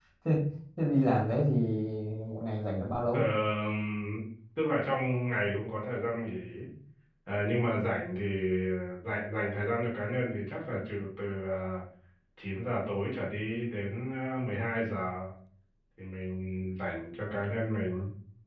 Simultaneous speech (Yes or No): No